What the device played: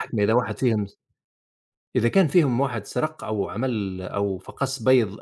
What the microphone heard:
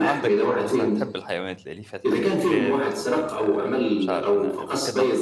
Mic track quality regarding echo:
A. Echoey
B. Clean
A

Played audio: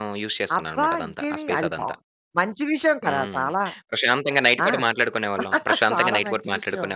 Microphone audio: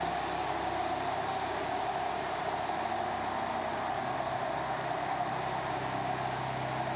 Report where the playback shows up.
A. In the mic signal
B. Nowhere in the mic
B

